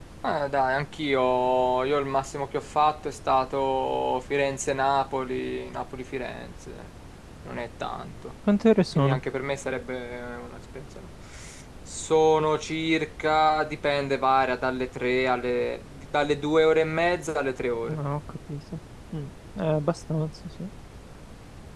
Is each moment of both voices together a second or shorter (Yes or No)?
Yes